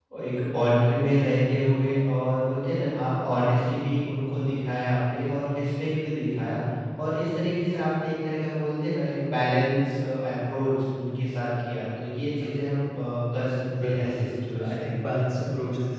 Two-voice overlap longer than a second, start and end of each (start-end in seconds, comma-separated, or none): 13.8-15.0